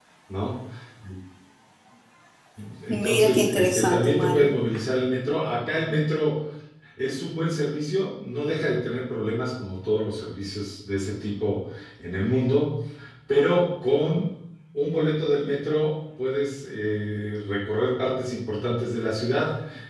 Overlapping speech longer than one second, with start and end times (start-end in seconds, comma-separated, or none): 2.9-4.5